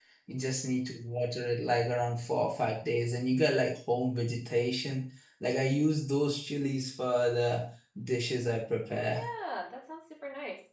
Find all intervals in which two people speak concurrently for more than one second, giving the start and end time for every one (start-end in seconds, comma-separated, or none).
none